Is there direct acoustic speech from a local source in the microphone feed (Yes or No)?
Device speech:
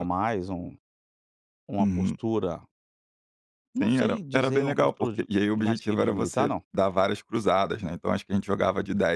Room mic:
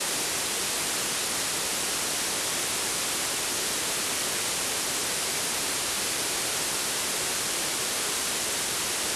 No